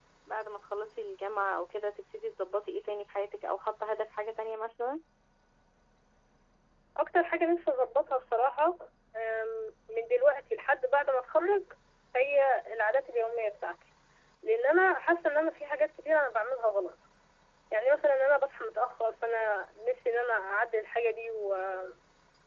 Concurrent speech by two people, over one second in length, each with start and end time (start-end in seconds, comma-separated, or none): none